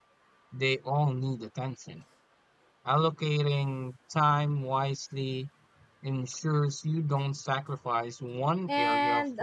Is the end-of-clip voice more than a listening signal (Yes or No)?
Yes